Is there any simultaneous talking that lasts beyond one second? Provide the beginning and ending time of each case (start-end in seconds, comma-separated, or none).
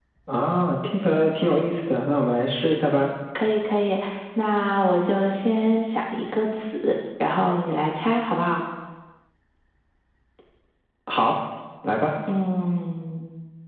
none